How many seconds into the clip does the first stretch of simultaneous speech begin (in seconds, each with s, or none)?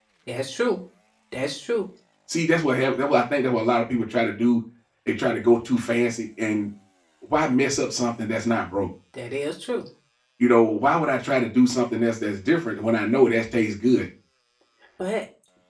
none